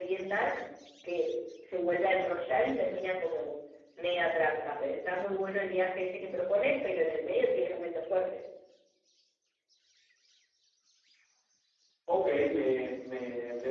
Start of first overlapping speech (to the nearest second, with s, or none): none